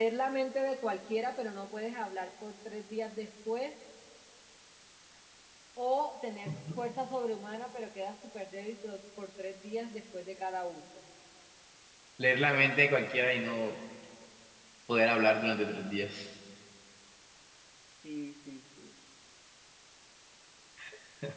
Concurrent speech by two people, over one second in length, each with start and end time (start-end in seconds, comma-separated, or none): none